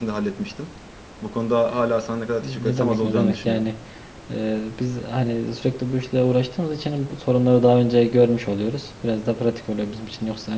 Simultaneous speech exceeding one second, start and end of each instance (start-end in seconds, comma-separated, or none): 2.4-3.7